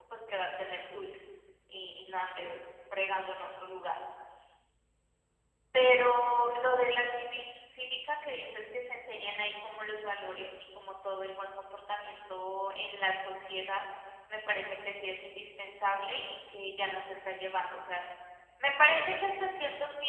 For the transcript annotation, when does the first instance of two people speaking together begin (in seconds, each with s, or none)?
none